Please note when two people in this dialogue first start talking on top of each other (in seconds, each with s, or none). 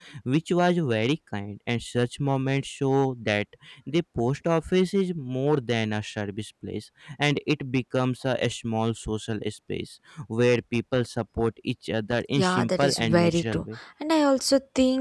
12.4 s